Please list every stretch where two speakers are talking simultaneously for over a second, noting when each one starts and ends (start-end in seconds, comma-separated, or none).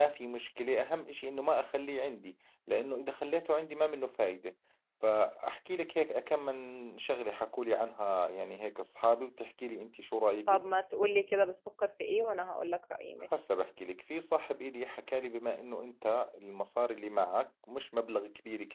none